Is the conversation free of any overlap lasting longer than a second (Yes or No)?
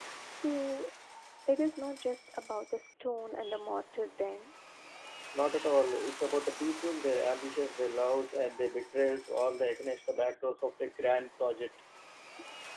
Yes